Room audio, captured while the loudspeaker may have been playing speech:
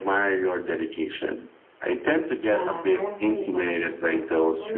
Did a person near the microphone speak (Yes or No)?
Yes